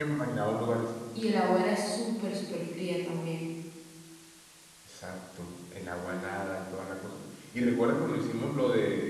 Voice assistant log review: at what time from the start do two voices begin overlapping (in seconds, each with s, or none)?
none